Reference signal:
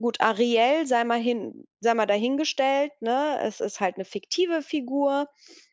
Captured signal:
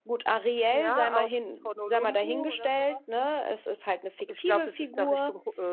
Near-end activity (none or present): present